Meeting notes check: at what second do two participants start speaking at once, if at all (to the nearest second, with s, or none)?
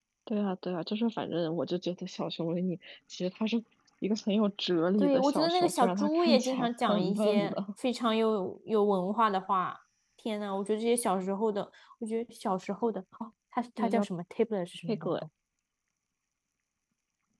5 s